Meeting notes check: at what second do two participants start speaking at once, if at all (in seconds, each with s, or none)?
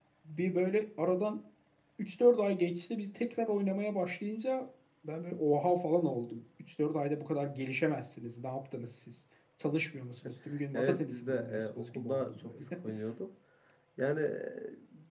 10.7 s